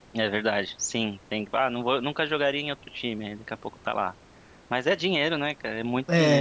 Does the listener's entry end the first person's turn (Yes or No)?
Yes